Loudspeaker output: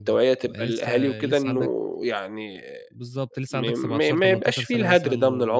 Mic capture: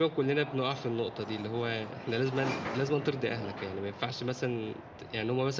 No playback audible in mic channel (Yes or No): Yes